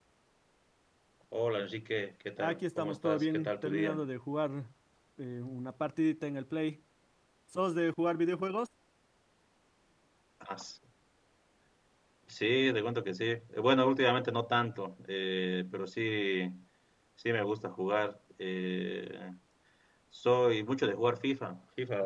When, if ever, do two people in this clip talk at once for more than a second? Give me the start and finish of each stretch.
2.4-4.0

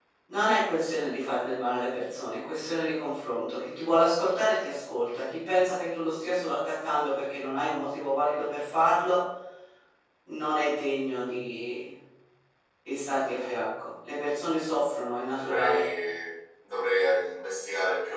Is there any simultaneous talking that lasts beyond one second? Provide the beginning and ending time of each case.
none

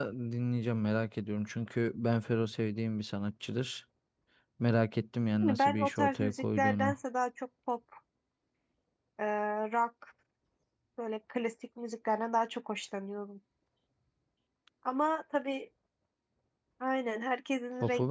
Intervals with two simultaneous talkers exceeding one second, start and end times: 5.4-7.0

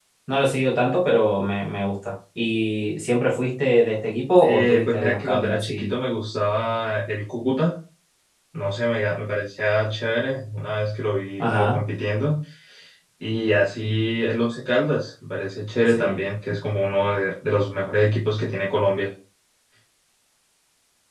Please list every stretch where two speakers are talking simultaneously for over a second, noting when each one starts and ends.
4.4-6.0

